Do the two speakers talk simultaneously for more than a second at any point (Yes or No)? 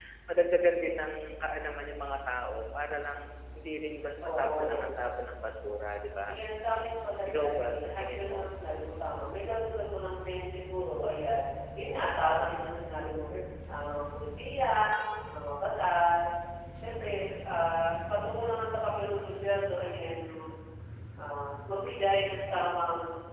Yes